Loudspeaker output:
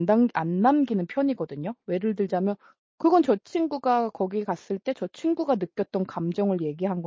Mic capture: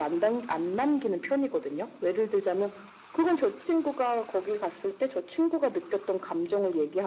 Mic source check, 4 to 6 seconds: echo only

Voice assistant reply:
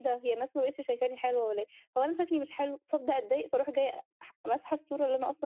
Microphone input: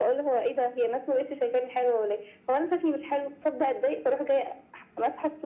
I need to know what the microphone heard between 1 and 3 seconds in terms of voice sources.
echo only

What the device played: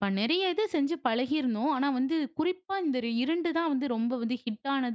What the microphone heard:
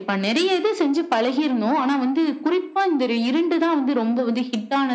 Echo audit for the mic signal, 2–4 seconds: echo only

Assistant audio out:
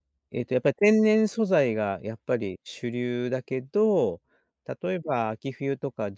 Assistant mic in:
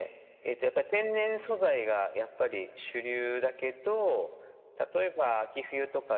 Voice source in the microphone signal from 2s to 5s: echo only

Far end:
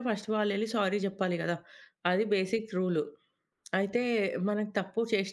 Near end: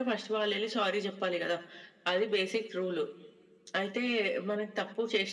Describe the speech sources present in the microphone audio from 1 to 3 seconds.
echo only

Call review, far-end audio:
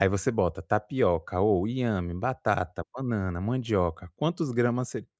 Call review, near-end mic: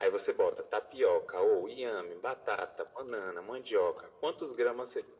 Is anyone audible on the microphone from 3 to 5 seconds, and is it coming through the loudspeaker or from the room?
echo only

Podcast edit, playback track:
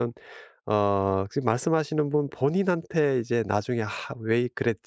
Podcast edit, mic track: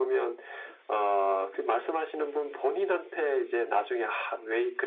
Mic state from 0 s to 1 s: echo only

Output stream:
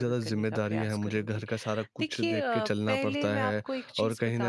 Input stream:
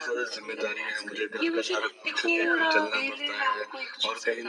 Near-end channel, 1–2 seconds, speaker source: both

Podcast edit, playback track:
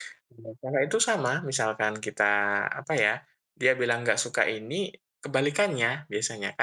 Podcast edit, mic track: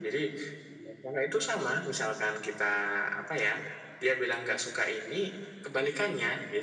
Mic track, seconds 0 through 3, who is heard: echo only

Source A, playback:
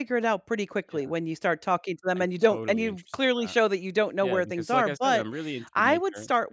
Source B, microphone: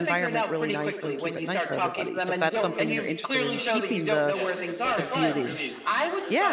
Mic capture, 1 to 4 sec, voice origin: both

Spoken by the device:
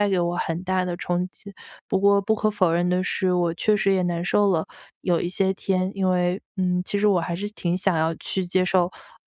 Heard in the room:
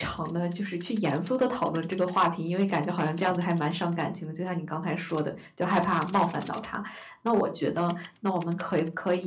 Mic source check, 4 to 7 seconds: user only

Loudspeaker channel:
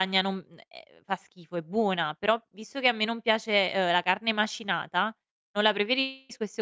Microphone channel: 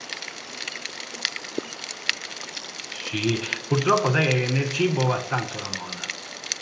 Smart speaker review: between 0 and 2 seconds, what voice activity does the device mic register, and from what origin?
neither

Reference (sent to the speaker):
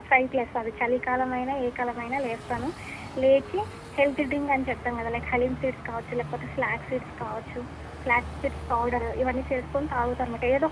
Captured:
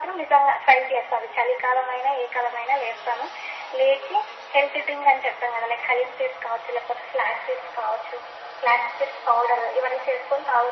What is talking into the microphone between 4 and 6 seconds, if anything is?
echo only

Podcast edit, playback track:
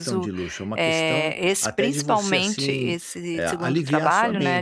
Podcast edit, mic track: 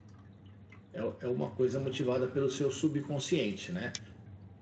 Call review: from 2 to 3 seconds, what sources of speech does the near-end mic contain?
user only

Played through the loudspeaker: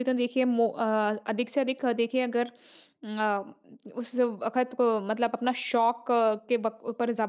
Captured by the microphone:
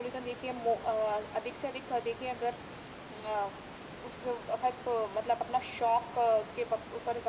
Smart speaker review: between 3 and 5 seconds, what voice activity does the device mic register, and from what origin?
echo only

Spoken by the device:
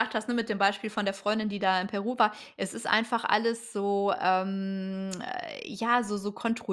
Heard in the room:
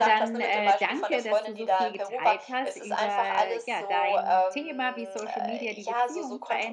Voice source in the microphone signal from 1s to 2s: both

